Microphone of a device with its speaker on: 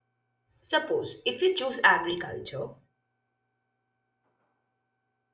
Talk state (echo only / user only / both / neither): user only